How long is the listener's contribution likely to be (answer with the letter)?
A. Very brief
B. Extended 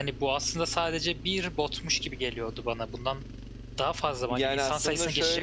B